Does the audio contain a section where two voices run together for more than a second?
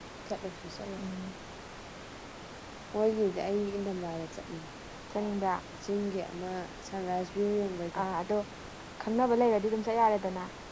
No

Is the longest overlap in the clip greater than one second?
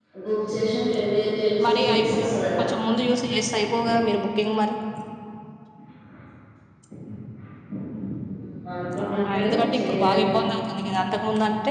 Yes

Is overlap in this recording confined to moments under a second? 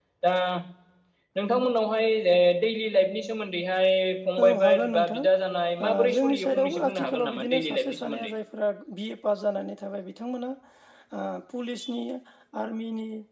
No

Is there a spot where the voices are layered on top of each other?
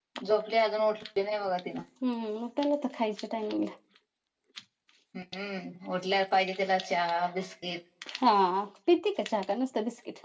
No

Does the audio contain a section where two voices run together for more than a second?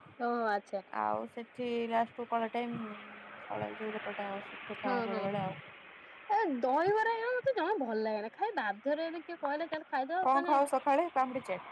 No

